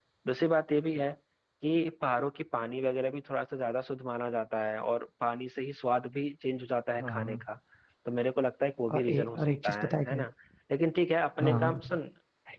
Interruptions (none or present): present